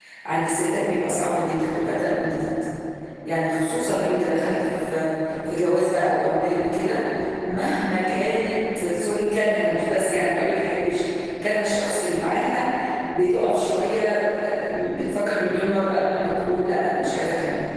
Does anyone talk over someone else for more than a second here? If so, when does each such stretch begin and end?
none

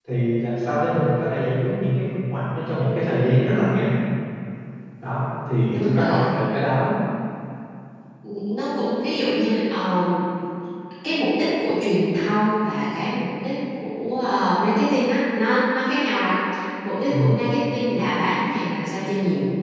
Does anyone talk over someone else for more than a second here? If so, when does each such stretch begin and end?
none

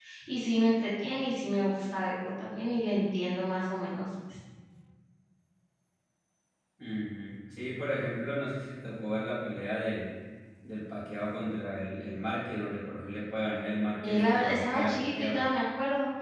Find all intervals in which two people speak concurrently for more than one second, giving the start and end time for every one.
14.0-15.4

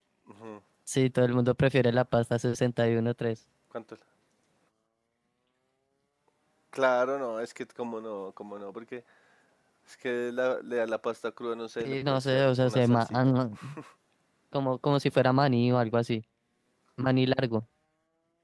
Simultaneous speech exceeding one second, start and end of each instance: 11.8-13.3

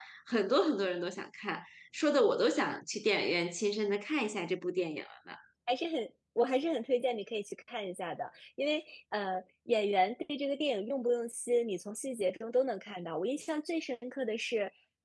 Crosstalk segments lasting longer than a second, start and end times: none

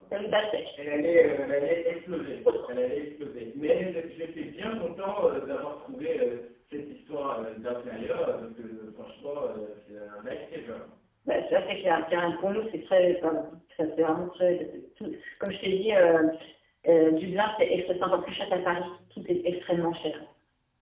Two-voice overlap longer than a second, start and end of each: none

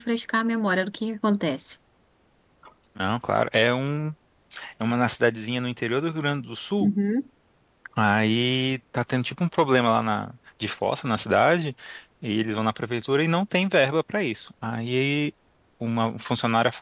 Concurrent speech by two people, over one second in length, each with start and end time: none

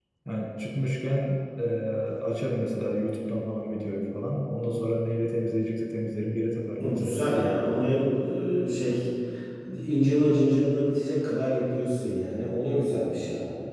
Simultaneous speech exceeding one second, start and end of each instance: none

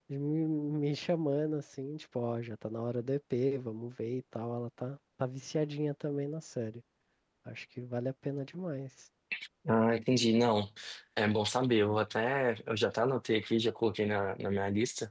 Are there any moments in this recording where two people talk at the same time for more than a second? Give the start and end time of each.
none

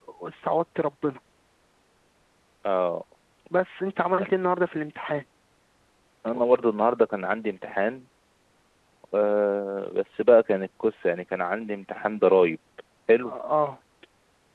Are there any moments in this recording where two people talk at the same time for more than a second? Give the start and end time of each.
none

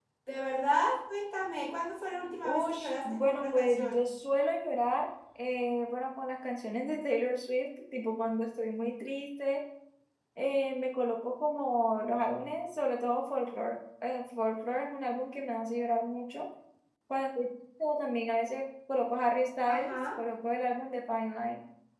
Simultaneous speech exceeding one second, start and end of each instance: 2.4-4.0

